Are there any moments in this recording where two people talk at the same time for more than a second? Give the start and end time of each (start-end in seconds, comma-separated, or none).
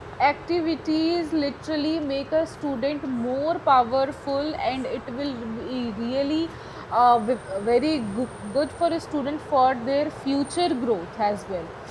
none